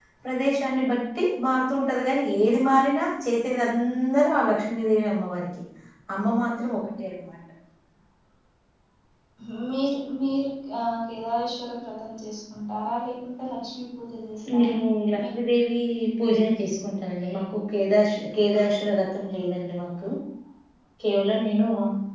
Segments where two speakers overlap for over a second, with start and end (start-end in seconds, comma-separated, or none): none